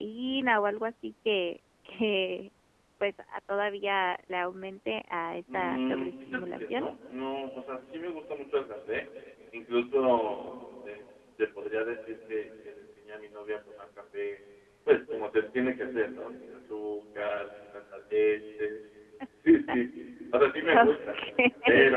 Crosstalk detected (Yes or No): Yes